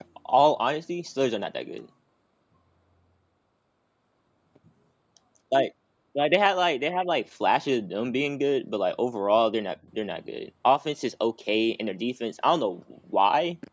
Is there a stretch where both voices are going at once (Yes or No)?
No